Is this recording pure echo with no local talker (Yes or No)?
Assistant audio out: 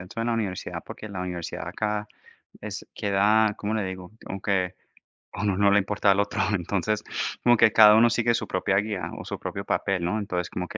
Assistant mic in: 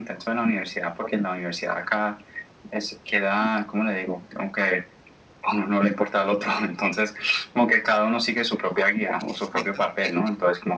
No